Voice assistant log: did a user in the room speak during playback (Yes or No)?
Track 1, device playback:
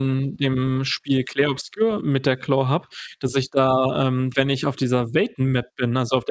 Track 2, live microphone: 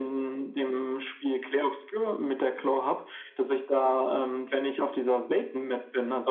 No